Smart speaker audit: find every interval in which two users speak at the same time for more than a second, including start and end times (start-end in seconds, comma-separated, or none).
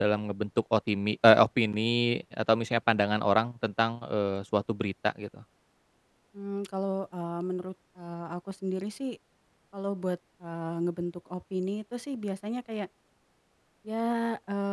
none